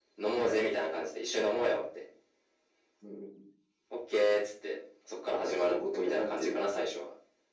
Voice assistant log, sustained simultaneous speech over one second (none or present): present